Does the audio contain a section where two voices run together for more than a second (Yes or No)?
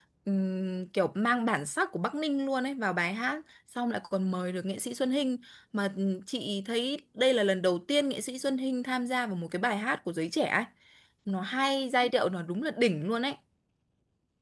No